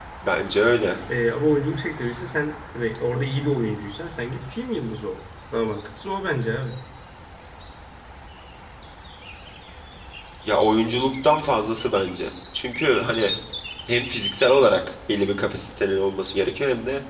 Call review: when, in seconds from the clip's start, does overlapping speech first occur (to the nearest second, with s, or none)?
none